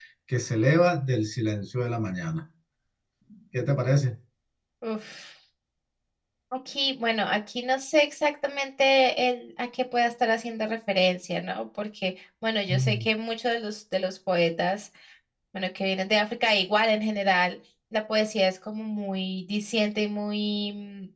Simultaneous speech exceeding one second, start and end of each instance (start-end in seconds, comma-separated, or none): none